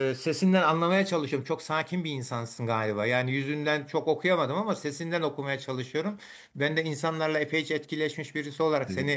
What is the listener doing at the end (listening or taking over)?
listening